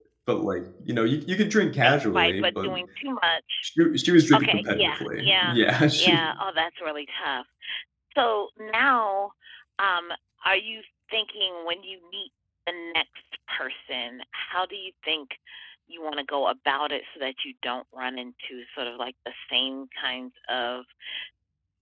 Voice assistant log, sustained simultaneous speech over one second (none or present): present